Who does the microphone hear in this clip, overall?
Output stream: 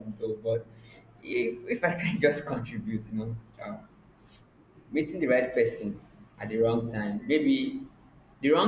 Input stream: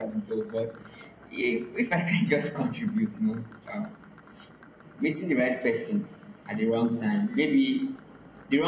echo only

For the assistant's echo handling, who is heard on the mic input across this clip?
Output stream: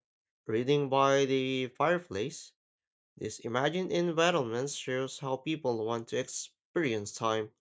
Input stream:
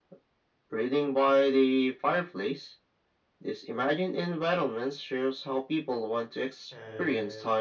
both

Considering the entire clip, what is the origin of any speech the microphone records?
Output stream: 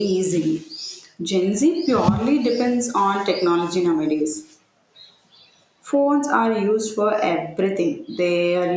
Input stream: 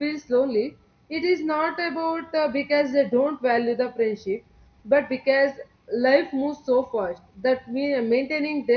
user only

